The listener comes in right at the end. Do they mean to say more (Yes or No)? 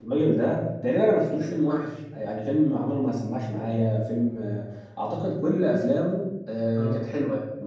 No